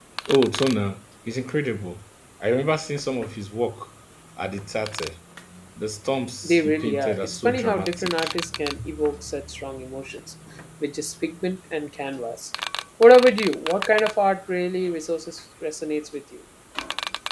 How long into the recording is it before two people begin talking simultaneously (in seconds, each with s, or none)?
6.4 s